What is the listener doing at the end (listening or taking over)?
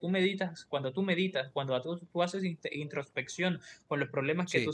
listening